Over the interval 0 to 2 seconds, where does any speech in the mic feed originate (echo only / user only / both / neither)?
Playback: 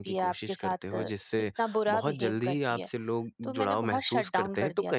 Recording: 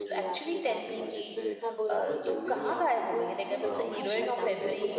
both